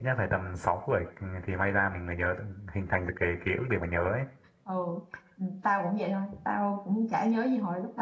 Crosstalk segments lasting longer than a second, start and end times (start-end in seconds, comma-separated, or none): none